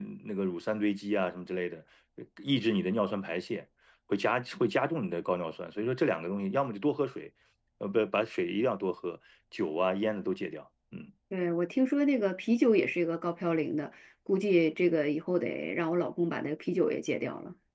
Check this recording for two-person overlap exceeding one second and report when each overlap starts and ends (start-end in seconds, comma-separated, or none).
none